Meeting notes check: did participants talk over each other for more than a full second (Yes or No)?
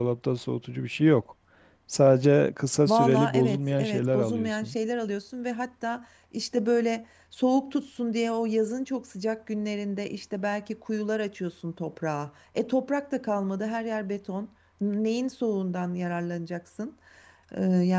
Yes